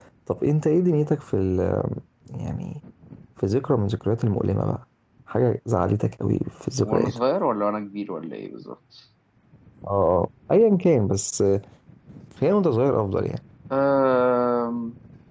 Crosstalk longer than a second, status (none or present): none